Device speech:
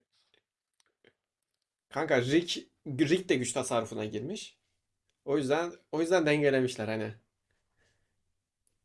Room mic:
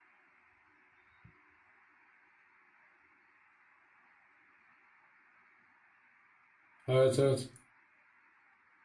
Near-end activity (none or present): present